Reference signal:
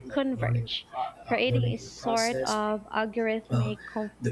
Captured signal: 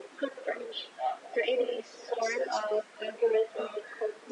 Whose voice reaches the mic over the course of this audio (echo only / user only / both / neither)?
echo only